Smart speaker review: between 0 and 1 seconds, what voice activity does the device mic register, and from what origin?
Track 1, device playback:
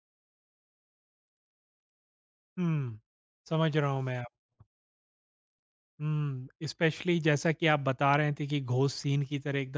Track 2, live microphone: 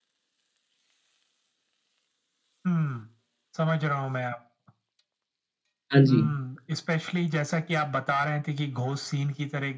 neither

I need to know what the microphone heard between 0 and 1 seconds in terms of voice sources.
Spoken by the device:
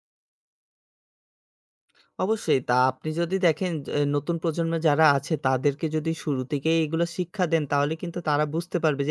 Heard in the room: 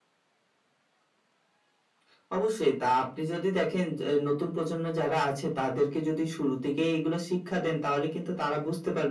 neither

